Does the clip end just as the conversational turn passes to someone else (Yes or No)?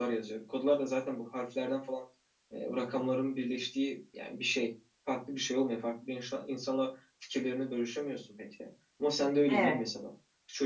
No